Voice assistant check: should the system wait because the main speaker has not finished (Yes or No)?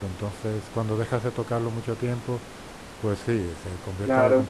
No